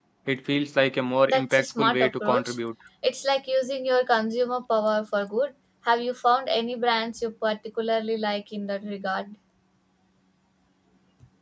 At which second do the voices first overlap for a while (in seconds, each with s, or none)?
1.3 s